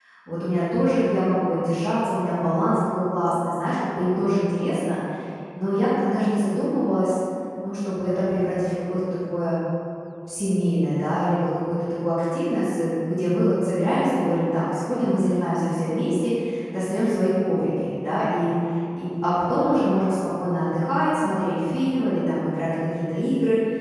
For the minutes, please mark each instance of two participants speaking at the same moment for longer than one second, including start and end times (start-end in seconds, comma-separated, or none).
none